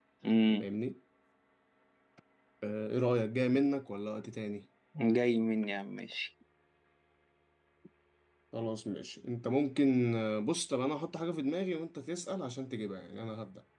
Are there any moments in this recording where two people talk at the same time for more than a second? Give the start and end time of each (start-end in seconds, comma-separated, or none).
none